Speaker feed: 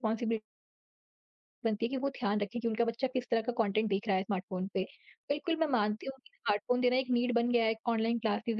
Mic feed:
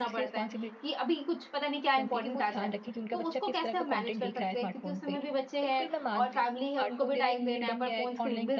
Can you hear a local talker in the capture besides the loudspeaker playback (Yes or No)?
Yes